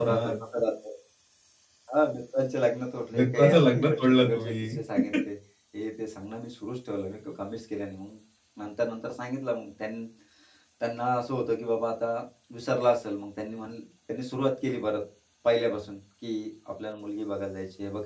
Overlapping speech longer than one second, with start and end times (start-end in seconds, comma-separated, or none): 3.2-4.7